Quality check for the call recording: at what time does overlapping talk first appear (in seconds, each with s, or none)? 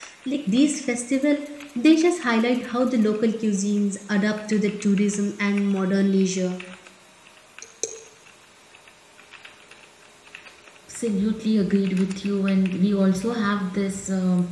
none